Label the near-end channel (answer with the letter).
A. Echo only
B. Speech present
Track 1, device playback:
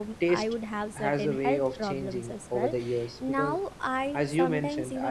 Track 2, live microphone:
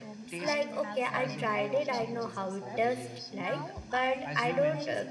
B